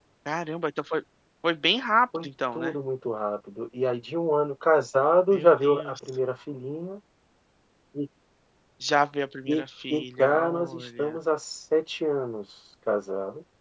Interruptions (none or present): present